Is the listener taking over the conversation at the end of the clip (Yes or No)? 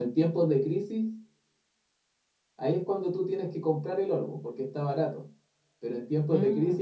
No